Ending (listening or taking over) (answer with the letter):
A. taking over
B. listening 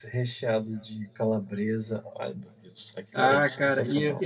A